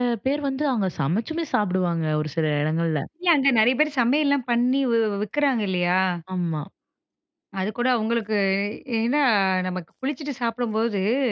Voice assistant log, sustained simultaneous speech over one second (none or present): none